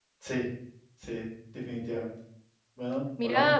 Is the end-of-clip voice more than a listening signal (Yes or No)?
Yes